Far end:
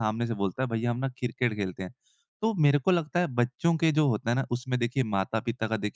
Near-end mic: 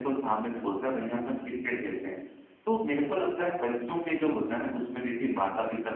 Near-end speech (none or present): none